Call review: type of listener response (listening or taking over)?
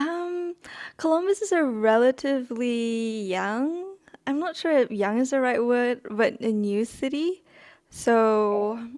listening